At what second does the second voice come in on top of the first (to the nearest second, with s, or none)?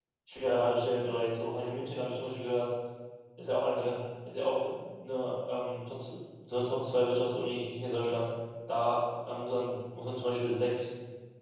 none